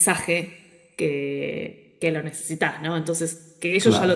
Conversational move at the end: listening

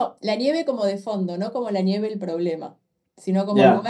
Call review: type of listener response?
listening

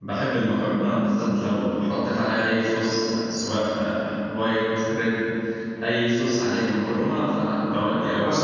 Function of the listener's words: taking over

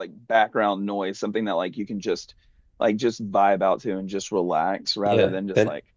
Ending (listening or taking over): taking over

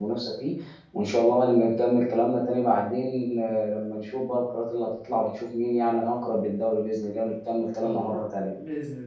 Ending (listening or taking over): taking over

